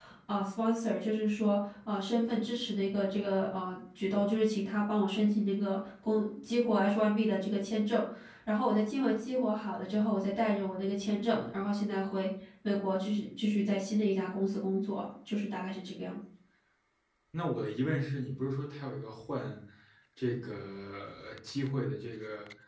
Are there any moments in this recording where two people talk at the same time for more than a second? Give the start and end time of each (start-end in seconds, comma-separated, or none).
none